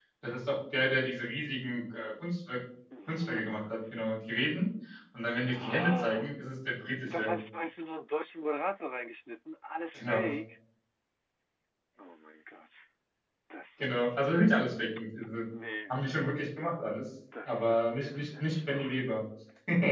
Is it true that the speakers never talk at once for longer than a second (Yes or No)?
No